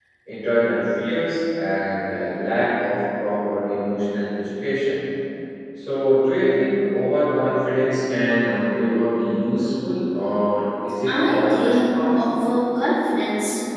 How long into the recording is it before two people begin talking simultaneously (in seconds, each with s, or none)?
11.1 s